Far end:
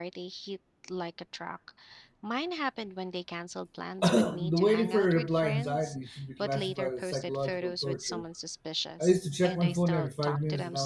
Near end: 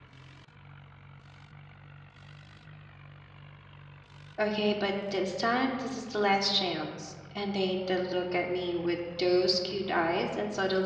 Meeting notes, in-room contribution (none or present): present